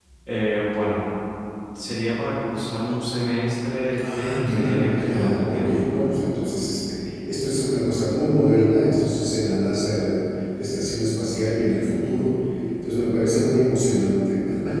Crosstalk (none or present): present